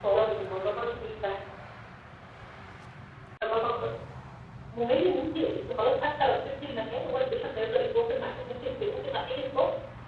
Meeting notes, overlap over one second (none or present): none